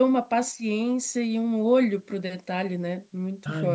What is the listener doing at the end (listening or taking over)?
taking over